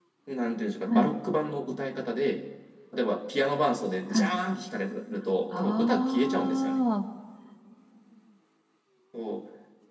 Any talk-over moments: Yes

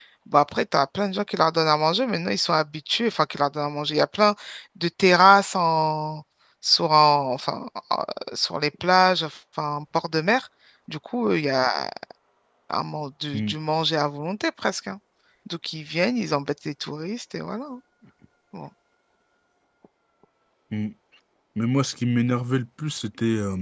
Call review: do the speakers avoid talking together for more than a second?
Yes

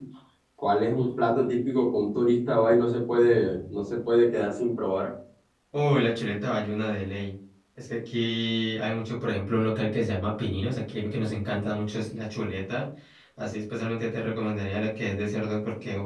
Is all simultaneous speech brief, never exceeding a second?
Yes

